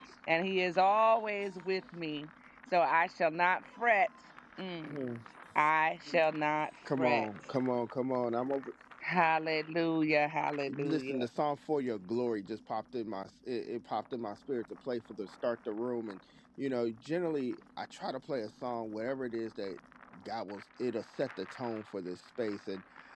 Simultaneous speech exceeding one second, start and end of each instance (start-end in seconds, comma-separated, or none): none